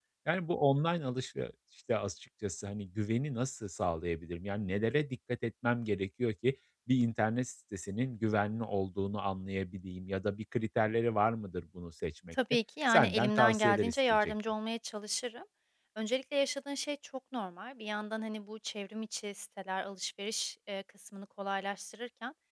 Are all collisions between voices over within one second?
No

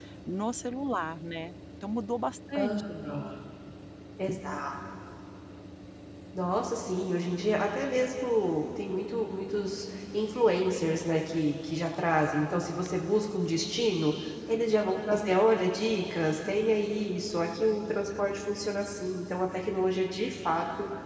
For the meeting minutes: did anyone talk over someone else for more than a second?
No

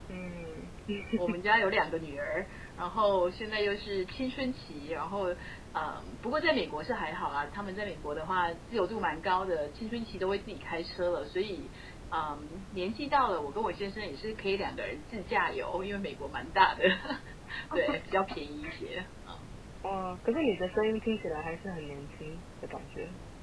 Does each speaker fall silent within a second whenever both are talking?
Yes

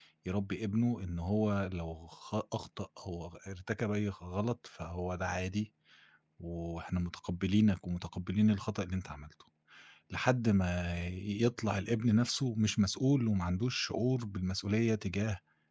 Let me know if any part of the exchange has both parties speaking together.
No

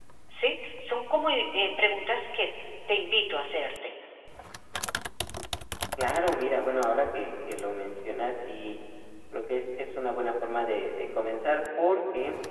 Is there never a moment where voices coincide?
Yes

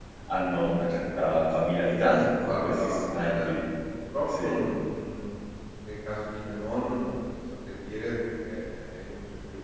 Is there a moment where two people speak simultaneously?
Yes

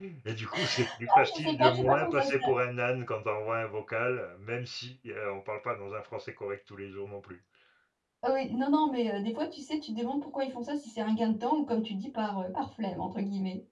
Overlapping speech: Yes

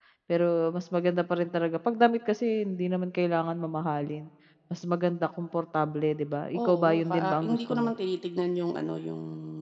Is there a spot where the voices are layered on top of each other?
Yes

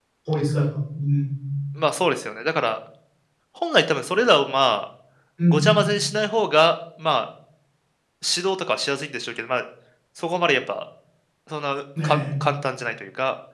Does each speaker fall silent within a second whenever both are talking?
Yes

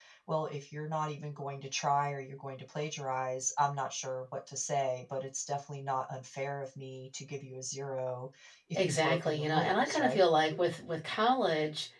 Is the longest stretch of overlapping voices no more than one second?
No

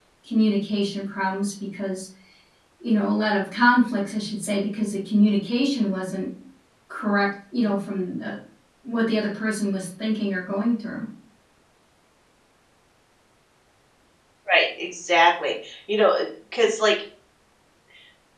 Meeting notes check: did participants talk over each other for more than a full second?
No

